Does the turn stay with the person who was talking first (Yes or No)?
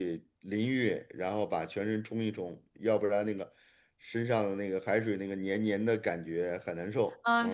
No